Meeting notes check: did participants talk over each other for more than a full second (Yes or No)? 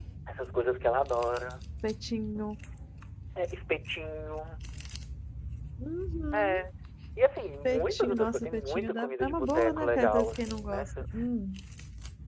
Yes